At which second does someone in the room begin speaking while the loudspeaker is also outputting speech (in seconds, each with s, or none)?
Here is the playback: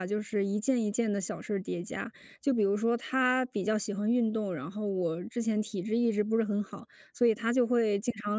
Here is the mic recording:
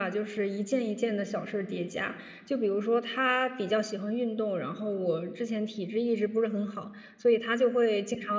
none